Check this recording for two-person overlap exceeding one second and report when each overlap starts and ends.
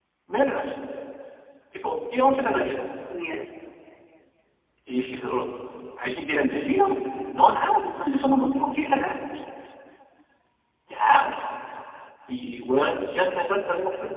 none

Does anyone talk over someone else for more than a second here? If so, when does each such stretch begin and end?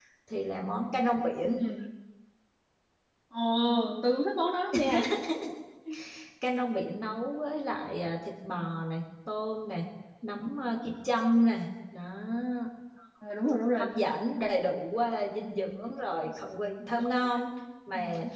none

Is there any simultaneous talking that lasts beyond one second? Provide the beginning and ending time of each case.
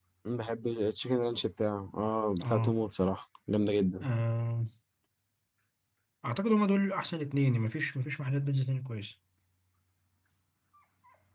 none

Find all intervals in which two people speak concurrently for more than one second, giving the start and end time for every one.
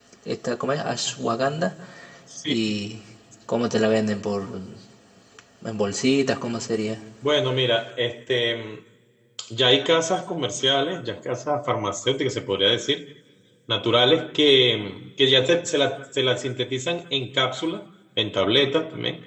none

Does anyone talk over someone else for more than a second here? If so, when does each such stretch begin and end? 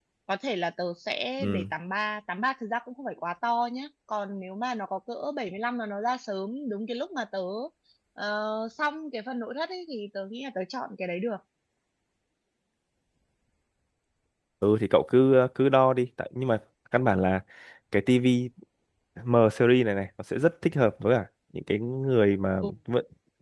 none

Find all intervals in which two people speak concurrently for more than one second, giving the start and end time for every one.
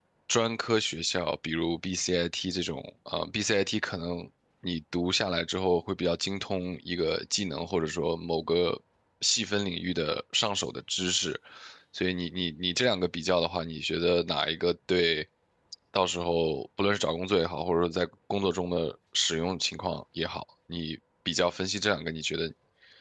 none

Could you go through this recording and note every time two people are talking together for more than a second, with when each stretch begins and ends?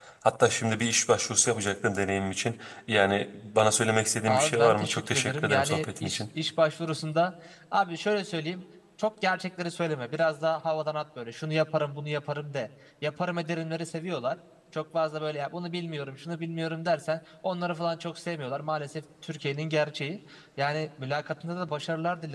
4.3-6.2

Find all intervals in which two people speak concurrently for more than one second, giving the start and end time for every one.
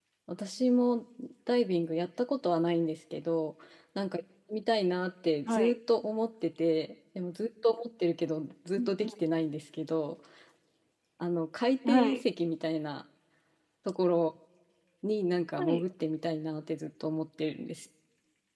none

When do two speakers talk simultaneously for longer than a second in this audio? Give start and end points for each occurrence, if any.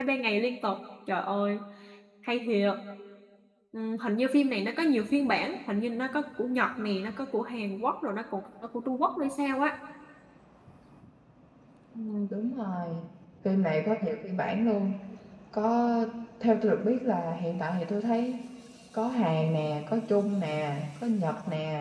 none

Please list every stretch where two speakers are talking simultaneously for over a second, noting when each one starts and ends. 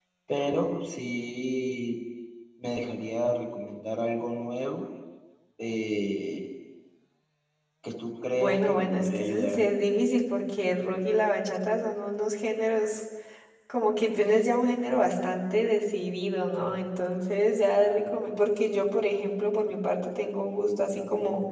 8.3-9.7

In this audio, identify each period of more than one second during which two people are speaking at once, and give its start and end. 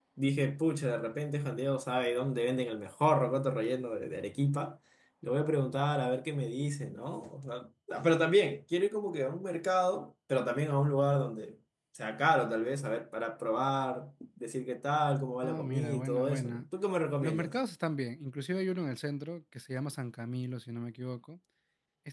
15.4-16.7

